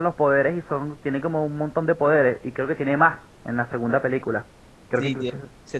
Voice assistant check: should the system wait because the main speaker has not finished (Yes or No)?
No